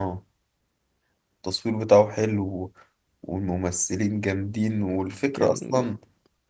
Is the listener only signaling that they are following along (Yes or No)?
Yes